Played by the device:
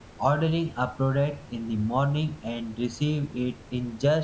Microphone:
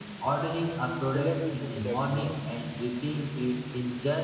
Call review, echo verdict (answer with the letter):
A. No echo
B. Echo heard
B